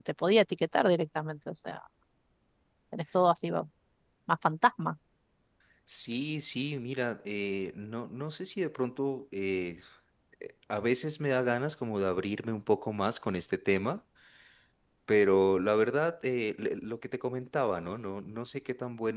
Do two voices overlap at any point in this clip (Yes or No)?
No